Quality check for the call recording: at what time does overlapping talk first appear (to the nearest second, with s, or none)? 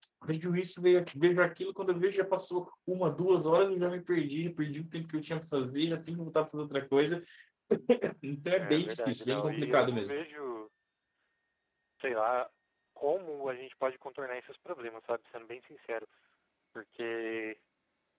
9 s